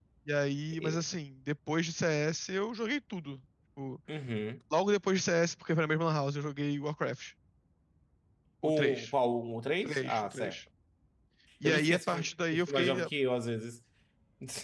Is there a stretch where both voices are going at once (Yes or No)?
Yes